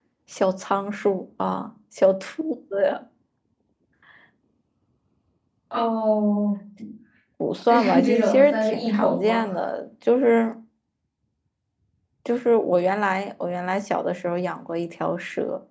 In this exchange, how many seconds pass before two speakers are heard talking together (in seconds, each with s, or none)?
7.7 s